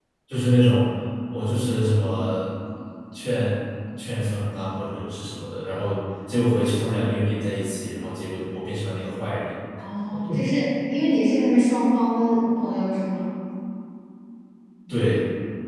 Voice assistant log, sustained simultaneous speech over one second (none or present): none